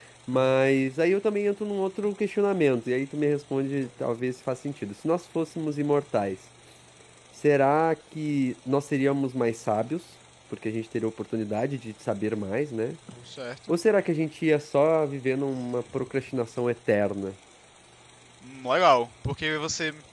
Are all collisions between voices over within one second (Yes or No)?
Yes